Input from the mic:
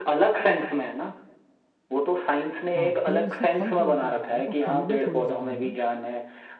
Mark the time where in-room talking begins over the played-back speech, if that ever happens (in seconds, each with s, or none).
2.8 s